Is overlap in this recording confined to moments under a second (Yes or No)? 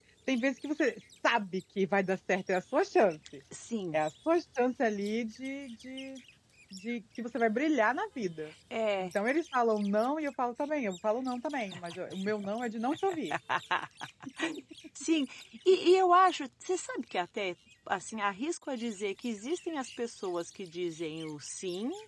Yes